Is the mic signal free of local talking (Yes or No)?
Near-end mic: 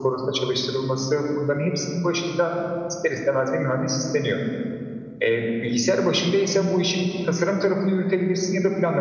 Yes